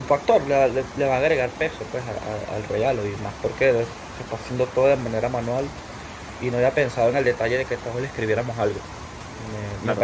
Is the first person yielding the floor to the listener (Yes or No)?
Yes